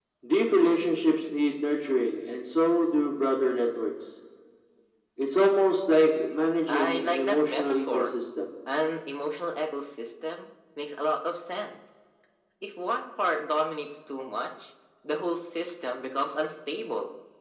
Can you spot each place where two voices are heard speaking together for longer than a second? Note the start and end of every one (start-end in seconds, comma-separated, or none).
6.7-8.1